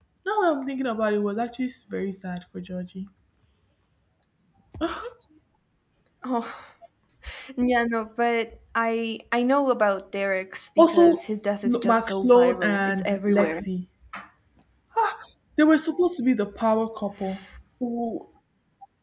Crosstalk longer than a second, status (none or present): present